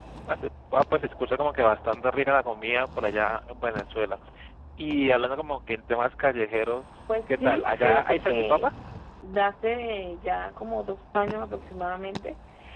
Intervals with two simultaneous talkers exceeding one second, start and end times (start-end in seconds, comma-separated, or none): 7.1-8.7